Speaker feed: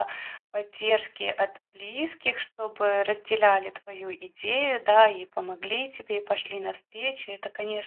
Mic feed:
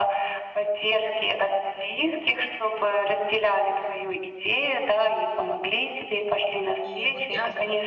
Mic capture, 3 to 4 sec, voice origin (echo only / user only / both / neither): echo only